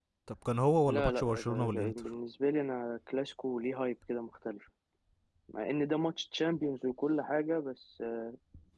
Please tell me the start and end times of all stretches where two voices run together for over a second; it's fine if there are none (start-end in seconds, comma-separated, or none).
0.9-2.1